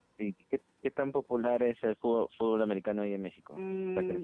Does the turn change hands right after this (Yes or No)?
Yes